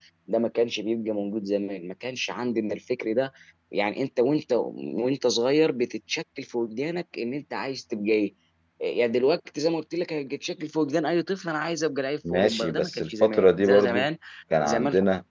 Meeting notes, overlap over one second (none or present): present